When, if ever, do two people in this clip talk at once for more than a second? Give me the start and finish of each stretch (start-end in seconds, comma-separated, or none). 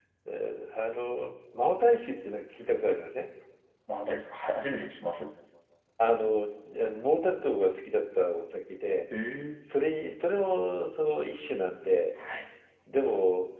none